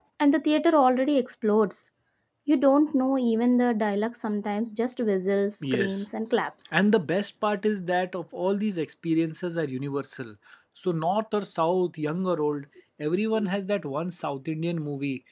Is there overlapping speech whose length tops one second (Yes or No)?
No